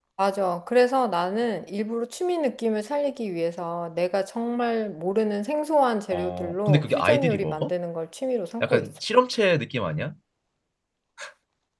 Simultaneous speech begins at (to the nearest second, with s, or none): 6 s